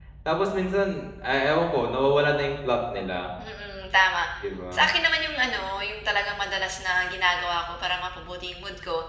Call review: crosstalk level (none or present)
none